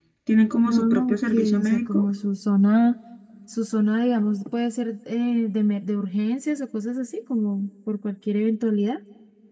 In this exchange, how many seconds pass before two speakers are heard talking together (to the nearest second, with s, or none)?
1 s